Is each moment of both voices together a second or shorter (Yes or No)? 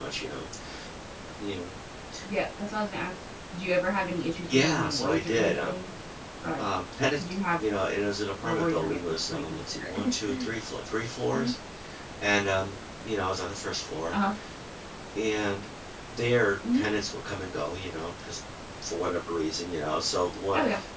No